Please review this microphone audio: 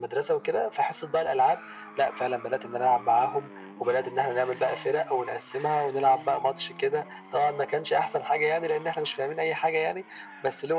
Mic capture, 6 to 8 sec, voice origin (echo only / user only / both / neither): echo only